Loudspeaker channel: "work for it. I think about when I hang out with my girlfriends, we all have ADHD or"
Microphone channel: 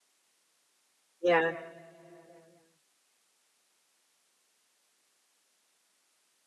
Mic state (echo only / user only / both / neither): user only